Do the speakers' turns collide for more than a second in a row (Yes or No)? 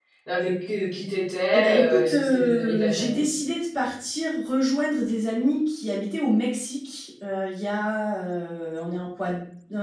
Yes